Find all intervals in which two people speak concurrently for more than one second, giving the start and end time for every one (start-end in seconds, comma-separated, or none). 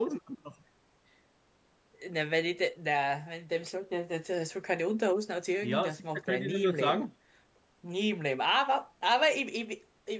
5.6-7.1